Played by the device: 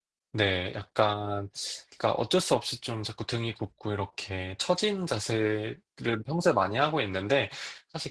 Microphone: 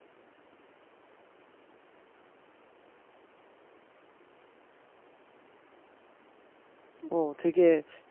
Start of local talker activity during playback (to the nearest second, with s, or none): 7 s